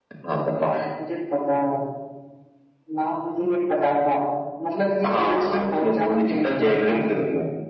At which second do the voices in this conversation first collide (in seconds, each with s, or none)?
5.0 s